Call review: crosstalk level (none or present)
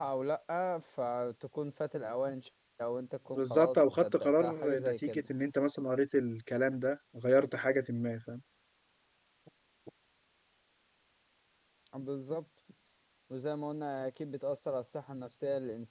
present